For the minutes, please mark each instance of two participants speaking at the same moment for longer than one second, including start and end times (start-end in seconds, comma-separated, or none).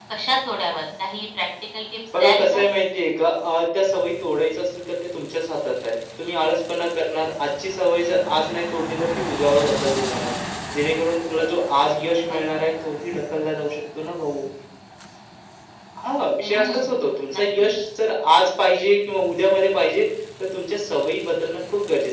16.4-17.7